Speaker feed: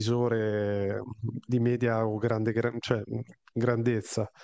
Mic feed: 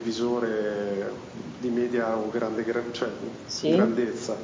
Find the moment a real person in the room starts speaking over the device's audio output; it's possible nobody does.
3.5 s

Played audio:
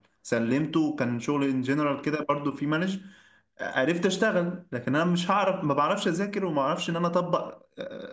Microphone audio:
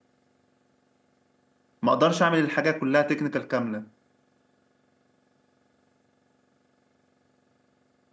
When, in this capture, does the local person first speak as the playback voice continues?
1.8 s

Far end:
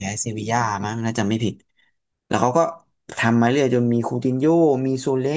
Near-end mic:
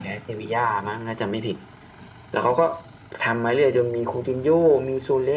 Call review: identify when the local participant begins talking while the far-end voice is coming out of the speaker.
none

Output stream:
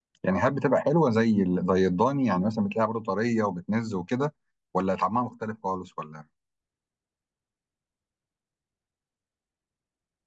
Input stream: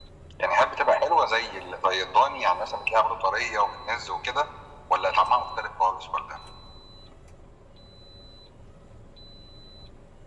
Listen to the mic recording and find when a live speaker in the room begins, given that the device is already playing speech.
none

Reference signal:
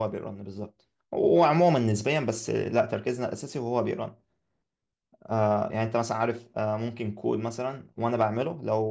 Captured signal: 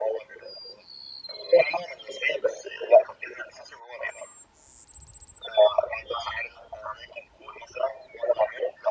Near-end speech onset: none

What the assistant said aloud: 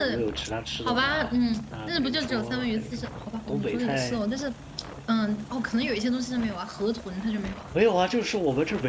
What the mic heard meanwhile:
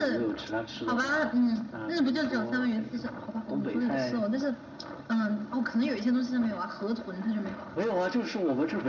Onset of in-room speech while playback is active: none

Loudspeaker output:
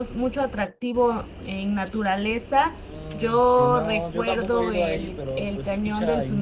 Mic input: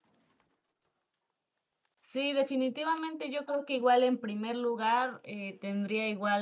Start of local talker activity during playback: 2.0 s

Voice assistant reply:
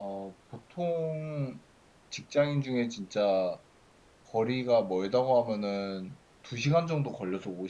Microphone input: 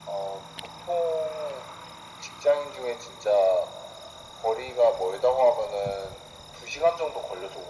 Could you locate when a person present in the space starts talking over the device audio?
none

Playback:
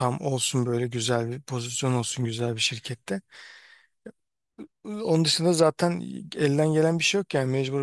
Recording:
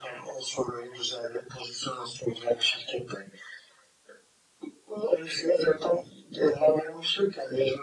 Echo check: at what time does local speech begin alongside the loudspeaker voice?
none

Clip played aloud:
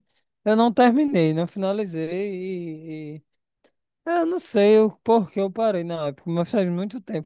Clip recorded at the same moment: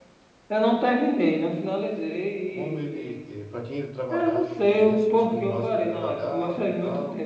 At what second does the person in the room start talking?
2.5 s

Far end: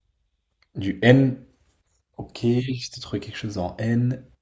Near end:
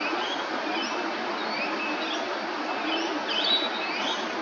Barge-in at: none

